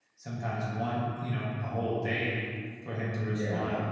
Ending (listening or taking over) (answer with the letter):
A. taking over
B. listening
B